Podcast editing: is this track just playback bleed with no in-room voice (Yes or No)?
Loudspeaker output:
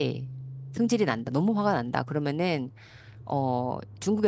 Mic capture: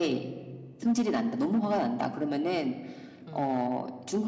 No